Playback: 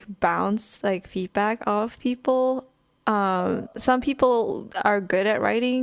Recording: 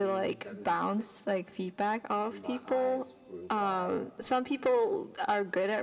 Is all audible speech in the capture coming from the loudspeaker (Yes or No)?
No